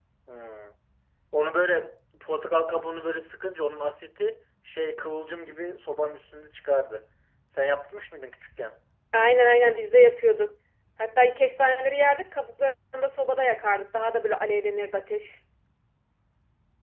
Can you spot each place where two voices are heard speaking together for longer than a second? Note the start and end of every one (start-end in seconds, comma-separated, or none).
none